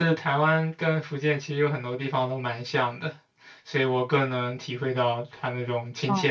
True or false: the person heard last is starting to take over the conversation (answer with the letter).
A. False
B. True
B